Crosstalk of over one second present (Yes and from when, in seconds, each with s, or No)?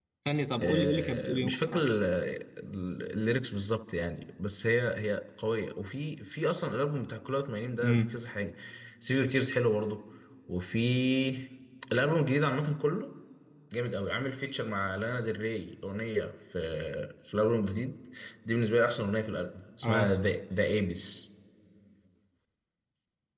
Yes, from 0.6 s